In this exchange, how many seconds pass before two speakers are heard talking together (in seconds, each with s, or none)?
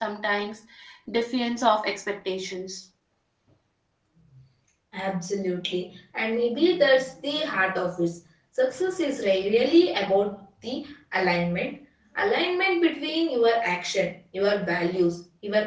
none